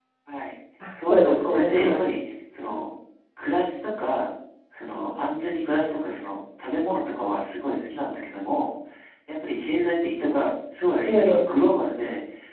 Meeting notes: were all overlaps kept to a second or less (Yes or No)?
No